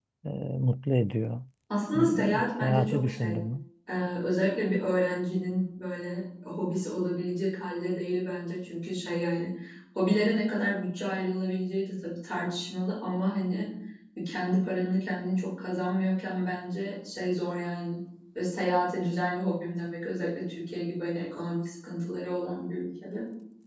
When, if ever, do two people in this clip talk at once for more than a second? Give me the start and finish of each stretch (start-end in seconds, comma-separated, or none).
1.9-3.4